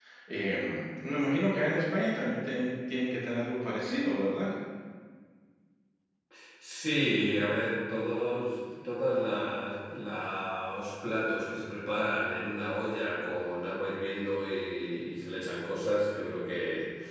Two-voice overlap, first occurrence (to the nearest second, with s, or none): none